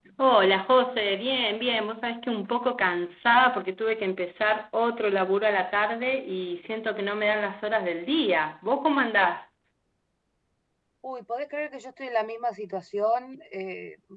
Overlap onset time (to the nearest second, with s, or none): none